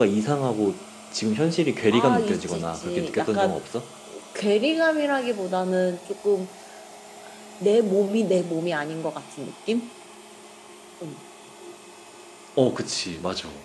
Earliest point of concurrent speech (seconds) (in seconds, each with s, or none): 1.9 s